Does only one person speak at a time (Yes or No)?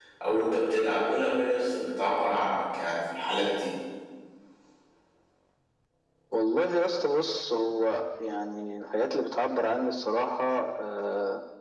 Yes